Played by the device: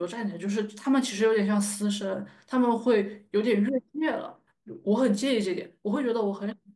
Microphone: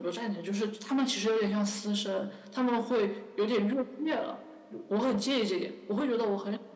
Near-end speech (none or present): none